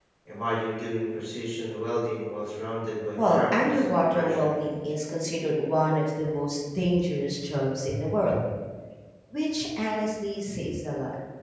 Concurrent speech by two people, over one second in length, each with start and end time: 3.2-4.5

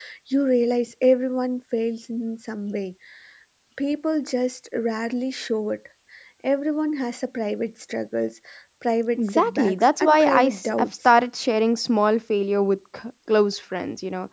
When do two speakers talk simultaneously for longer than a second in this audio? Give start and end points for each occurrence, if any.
9.2-10.9

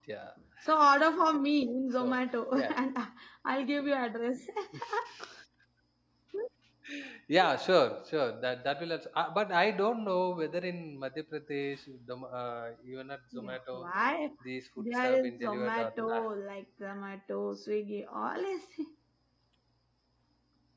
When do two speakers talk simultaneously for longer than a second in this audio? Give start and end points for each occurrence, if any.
14.8-16.1

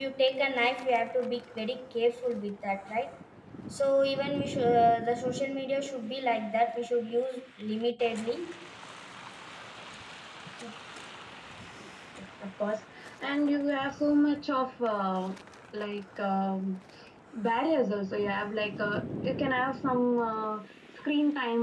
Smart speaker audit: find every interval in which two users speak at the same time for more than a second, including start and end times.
none

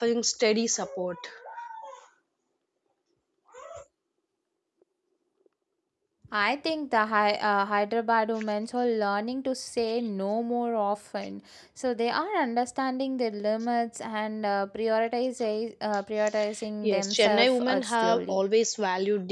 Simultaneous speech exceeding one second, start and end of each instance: 16.8-18.4

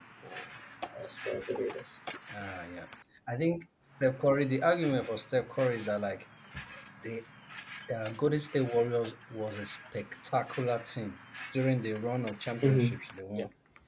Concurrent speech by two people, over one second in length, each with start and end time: none

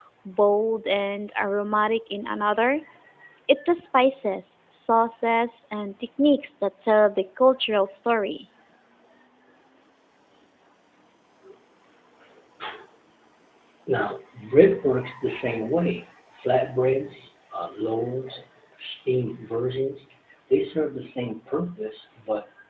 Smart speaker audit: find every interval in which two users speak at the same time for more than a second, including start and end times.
none

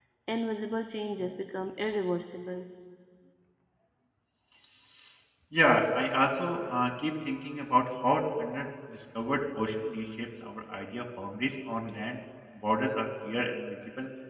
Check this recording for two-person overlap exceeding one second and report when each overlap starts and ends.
none

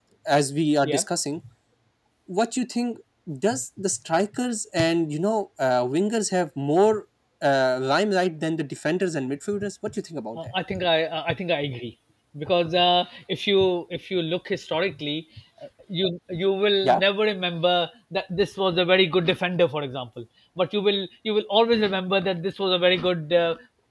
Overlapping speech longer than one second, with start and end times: none

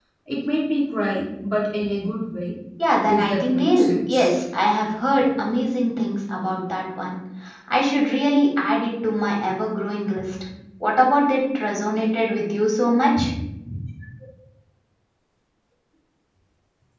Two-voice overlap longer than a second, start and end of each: 3.1-4.3

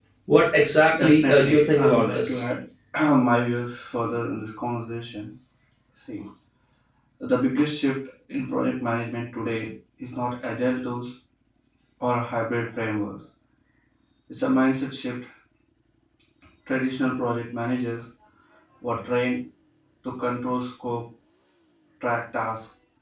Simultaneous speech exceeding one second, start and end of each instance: 1.0-2.4

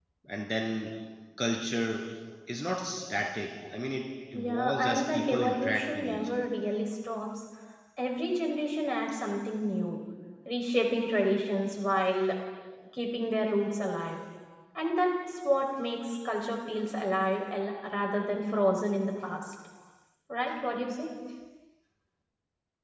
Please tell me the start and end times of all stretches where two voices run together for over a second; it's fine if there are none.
4.3-6.4

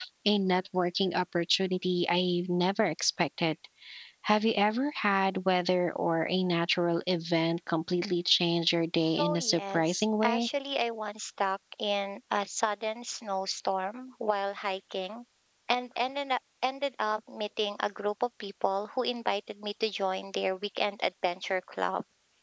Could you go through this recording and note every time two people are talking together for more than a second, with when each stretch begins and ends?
9.2-10.5

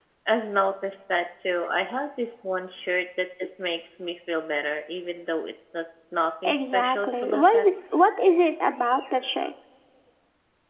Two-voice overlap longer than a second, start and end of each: 6.5-7.7

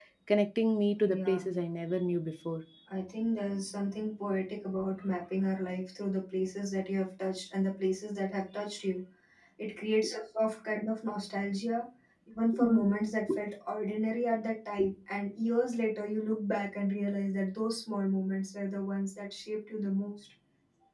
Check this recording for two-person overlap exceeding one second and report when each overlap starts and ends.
none

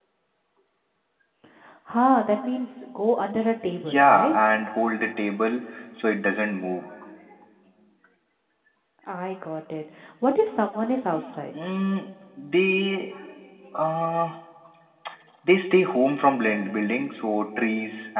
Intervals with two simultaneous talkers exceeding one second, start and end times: none

